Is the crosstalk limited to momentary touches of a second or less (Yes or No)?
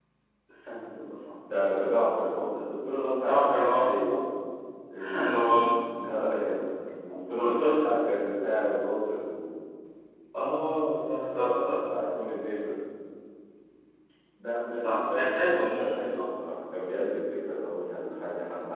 No